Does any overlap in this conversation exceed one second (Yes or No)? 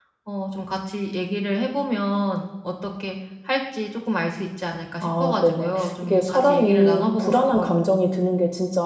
Yes